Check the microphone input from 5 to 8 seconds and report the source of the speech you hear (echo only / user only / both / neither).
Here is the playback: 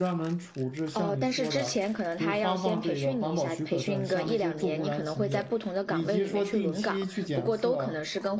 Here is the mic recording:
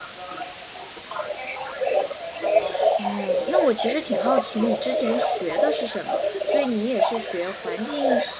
both